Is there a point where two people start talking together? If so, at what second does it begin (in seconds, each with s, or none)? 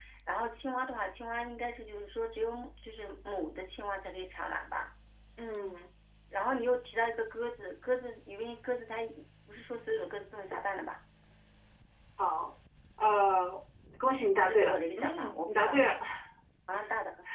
14.5 s